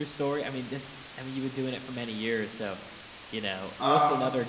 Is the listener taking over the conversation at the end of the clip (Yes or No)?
No